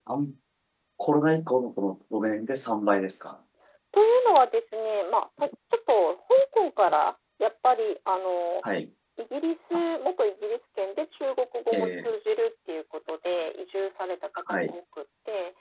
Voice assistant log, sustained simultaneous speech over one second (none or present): none